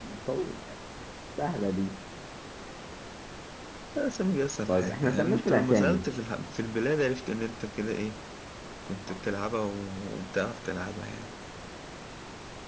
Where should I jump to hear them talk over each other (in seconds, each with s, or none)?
4.7 s